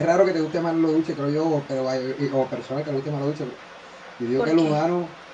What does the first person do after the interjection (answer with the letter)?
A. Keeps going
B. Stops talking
A